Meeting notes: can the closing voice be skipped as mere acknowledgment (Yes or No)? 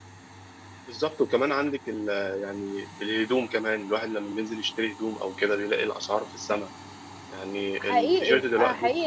No